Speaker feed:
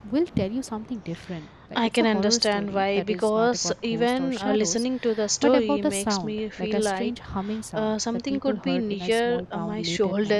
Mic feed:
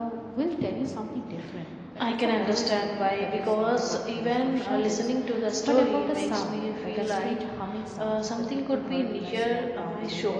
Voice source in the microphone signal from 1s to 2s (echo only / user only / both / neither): echo only